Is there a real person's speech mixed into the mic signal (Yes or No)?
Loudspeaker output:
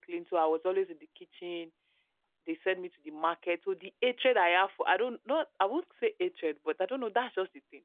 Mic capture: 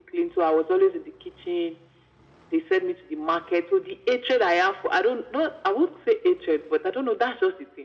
No